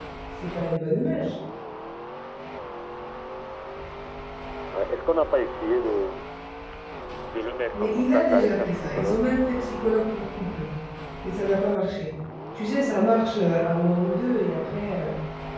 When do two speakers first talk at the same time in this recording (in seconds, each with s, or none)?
7.7 s